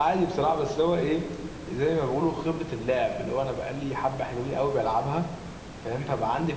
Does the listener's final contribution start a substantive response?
No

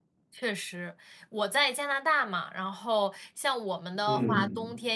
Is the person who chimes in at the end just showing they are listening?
Yes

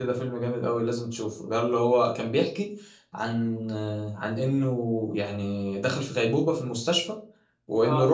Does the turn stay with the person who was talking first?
Yes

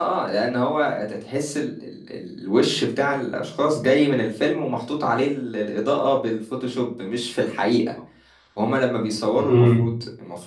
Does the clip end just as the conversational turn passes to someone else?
No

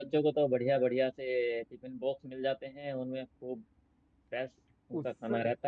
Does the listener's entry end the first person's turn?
Yes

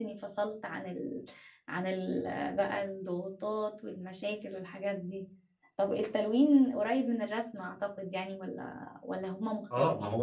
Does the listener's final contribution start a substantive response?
Yes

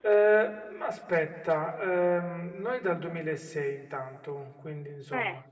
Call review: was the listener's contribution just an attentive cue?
No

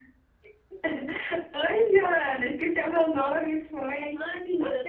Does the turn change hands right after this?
Yes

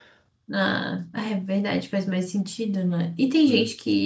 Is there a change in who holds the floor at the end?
No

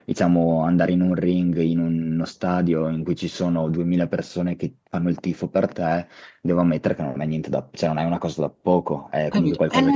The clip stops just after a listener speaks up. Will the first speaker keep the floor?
No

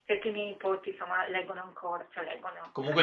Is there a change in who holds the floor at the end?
Yes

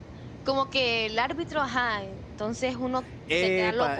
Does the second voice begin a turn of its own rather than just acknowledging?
Yes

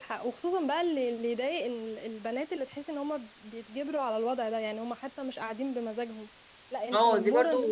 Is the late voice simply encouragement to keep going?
No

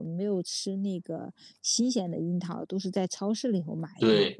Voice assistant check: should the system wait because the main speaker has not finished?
No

